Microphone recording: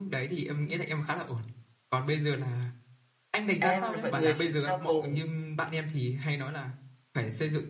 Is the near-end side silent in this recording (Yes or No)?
No